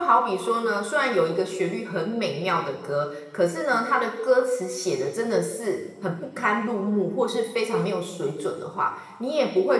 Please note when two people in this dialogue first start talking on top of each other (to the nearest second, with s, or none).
none